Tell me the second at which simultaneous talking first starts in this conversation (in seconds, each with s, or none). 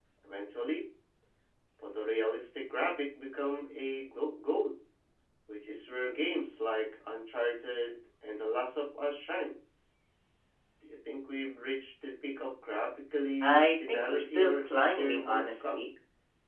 13.4 s